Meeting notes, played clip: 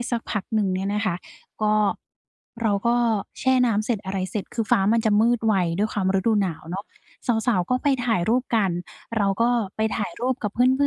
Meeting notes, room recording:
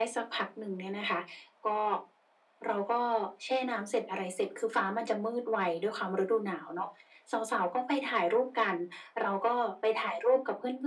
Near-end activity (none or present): none